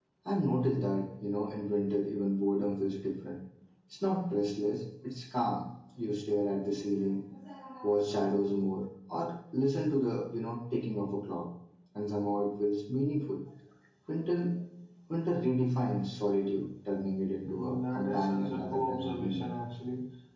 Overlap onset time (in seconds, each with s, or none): 17.4 s